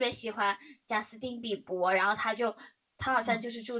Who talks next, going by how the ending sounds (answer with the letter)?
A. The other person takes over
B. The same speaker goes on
B